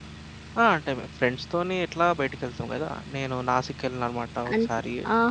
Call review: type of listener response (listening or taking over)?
taking over